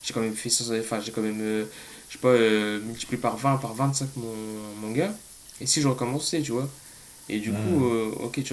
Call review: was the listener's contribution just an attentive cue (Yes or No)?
Yes